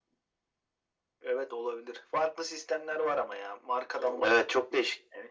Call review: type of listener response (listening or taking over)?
taking over